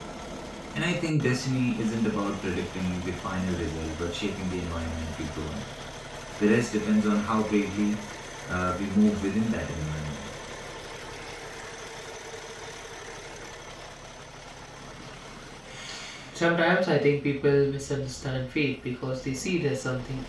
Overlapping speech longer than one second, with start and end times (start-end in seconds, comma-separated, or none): none